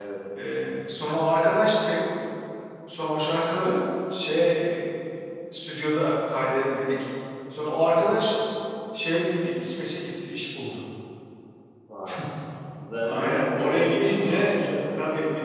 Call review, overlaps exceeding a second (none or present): present